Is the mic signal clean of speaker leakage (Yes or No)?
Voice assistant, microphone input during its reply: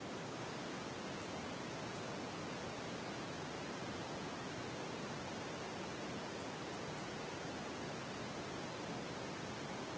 Yes